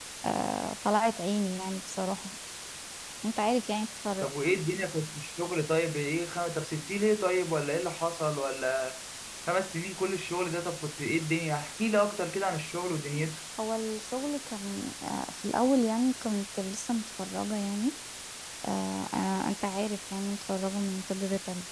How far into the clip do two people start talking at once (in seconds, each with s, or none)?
none